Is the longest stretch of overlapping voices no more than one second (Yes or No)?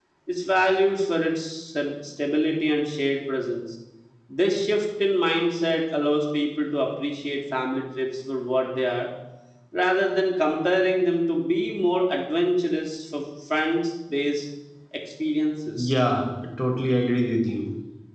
Yes